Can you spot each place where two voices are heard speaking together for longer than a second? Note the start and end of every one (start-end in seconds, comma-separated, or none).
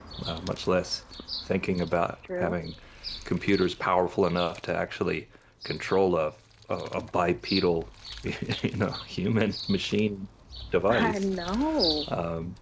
none